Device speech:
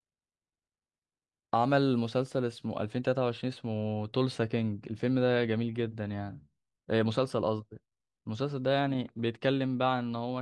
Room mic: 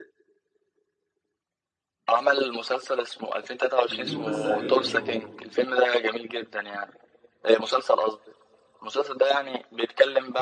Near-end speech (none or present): present